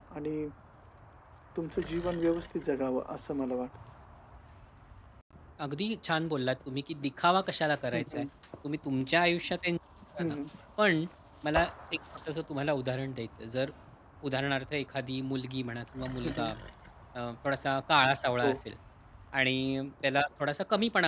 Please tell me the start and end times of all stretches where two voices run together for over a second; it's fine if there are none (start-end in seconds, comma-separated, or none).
none